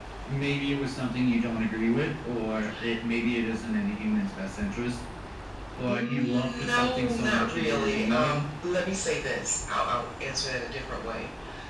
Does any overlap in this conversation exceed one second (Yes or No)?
Yes